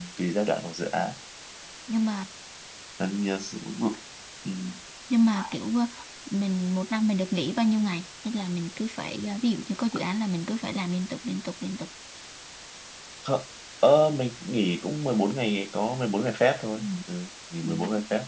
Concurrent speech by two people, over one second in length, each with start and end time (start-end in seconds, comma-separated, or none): none